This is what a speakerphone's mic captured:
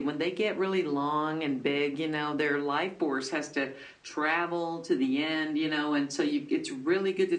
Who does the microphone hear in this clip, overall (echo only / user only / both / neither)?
echo only